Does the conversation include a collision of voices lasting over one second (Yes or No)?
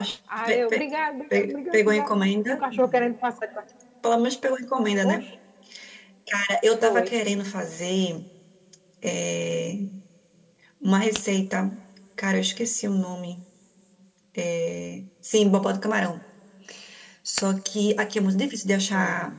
Yes